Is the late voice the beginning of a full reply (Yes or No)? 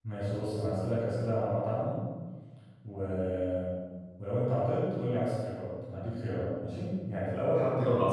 No